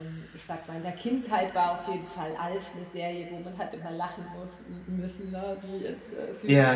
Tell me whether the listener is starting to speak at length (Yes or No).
No